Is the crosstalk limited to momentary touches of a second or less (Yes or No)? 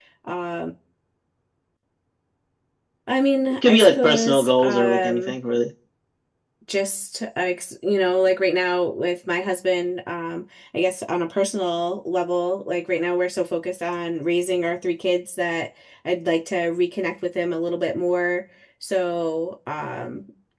No